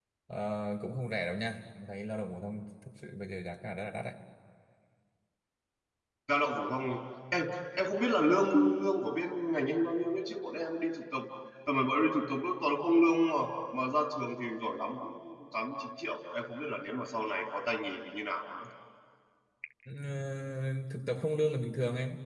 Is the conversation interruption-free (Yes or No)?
Yes